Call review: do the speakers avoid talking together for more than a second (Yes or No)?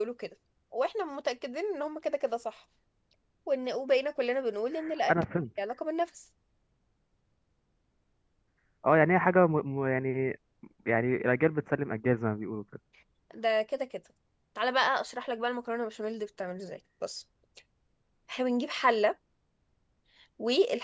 Yes